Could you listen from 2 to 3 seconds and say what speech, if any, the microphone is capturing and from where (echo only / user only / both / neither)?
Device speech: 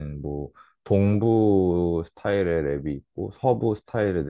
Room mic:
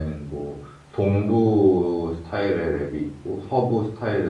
echo only